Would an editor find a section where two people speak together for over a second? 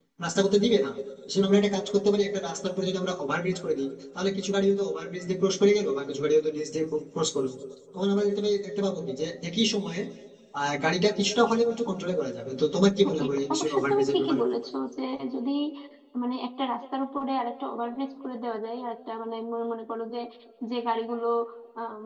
Yes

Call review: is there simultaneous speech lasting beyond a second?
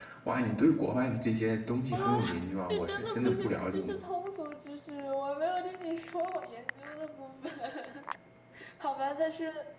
Yes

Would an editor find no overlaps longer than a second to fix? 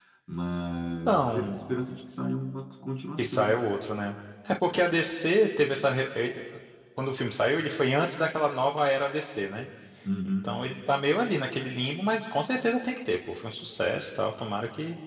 Yes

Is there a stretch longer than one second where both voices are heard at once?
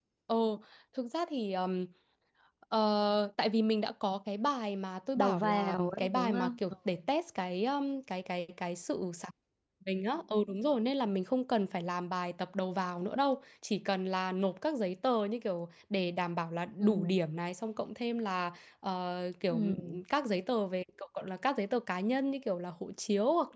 Yes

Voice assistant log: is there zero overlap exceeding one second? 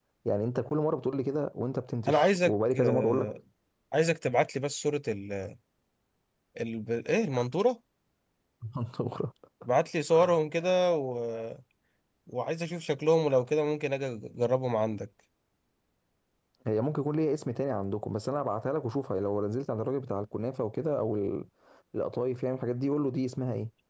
No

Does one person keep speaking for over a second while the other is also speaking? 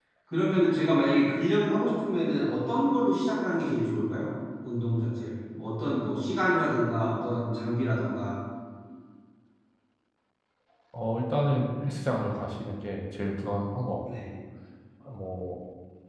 No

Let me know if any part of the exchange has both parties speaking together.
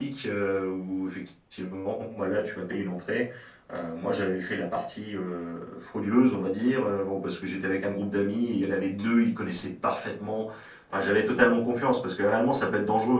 No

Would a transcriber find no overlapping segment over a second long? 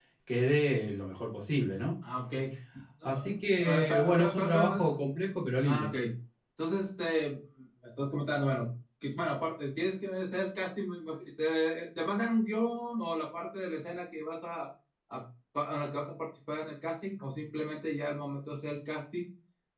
No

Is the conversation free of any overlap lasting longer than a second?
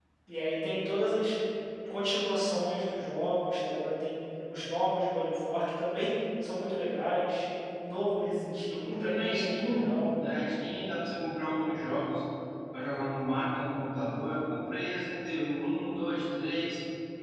No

